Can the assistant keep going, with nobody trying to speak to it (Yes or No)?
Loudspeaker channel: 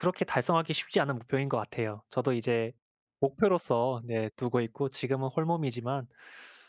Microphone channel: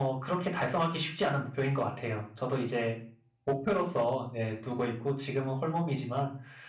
Yes